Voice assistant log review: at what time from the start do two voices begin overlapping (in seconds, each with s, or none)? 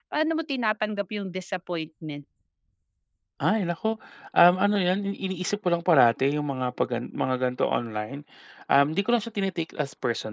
none